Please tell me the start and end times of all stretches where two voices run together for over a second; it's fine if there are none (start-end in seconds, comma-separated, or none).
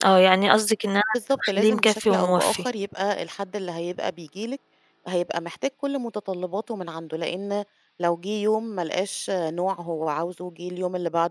1.1-2.6